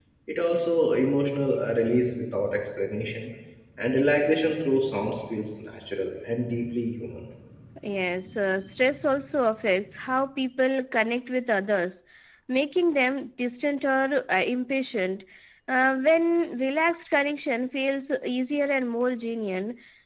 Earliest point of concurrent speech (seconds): none

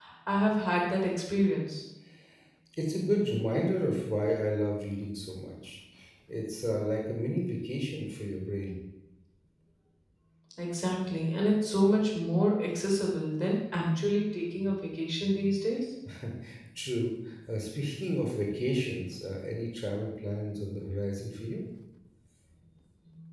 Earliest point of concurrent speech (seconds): none

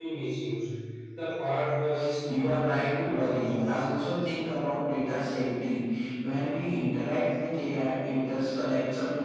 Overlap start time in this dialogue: 2.3 s

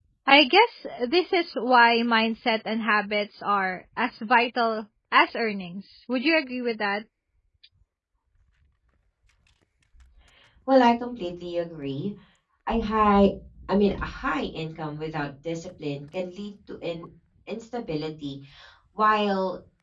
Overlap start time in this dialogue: none

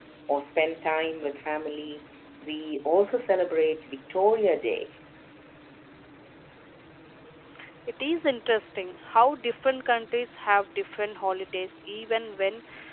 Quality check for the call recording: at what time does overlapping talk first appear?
none

